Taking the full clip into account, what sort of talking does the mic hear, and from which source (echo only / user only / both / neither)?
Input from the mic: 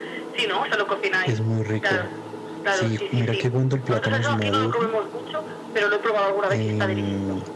both